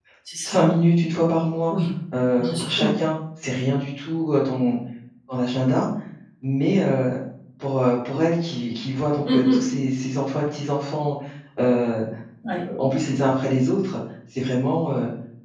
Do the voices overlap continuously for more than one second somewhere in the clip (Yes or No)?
No